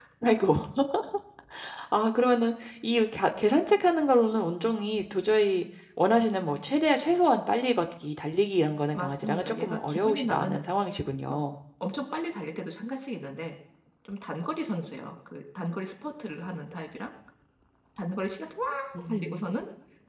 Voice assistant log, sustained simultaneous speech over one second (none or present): present